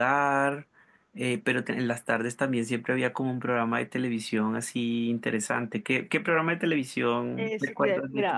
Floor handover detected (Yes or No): Yes